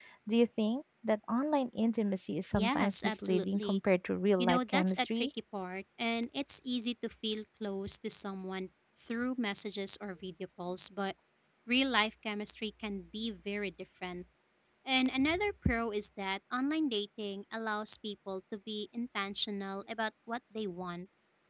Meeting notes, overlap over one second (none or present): present